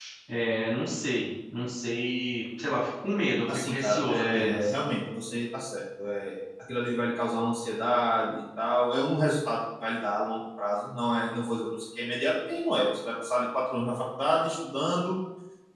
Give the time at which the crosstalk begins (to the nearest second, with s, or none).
3 s